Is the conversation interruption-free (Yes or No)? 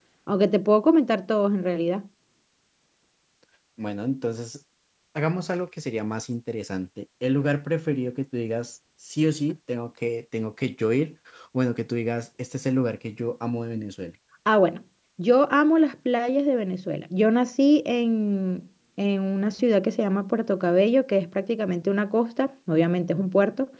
Yes